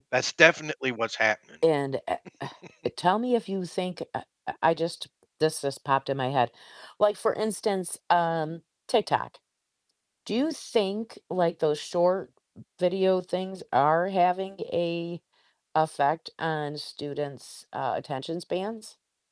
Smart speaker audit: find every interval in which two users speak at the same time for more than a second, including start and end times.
none

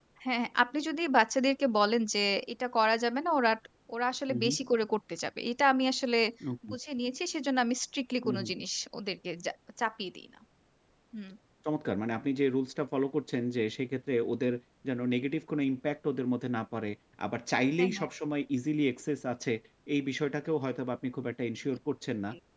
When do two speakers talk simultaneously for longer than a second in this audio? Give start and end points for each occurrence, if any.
none

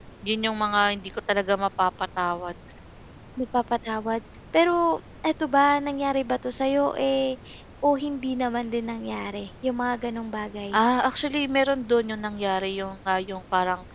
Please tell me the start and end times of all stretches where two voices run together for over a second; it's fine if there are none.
none

